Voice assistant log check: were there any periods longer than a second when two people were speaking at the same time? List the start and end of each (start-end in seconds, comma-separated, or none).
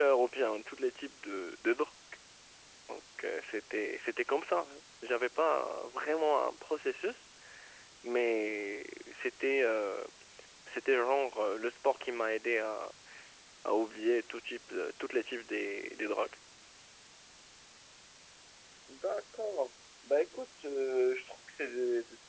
none